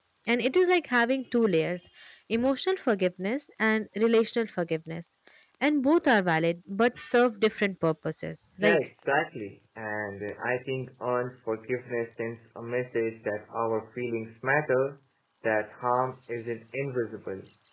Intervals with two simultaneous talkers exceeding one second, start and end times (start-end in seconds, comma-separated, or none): none